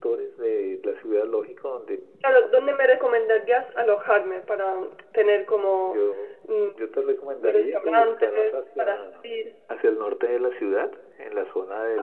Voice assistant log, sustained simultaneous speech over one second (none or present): present